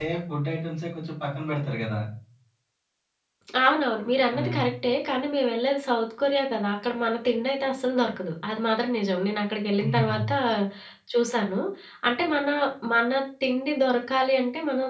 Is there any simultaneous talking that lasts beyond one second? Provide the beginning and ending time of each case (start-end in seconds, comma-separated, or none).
none